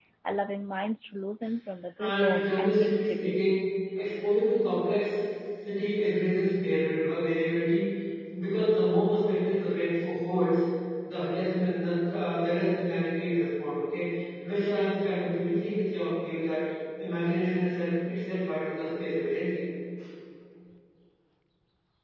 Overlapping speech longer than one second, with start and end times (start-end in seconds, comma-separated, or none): 2.0-3.6